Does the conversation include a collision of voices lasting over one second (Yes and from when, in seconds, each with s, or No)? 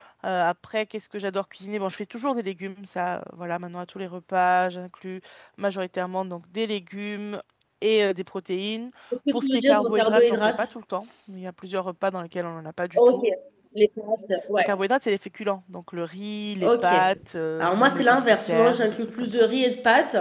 Yes, from 9.3 s